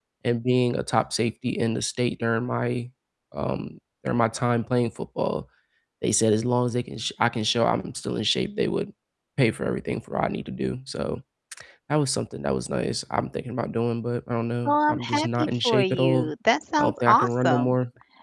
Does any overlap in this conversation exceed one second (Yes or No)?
Yes